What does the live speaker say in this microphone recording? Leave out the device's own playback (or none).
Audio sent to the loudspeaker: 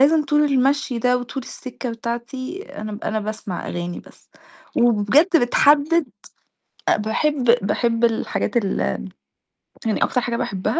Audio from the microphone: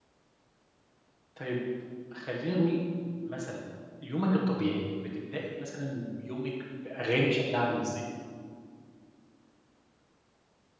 طيب خلينا نقول مثلًا يومِك الطبيعي، بتبدئي مثلًا يومِك بأغاني شكلها عامل إزاي؟